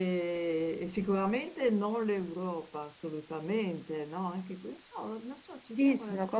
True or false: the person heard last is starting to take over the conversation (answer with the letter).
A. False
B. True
B